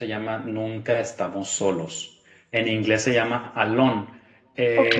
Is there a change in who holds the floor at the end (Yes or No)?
No